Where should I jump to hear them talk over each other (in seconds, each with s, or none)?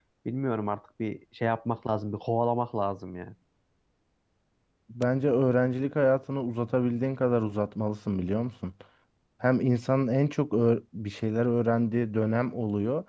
none